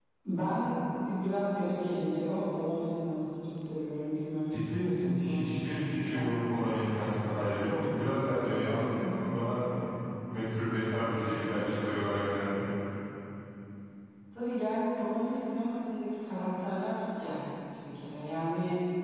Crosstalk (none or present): present